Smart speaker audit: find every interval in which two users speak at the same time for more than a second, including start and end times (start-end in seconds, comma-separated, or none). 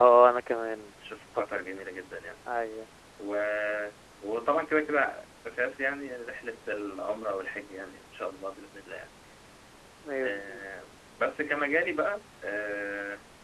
none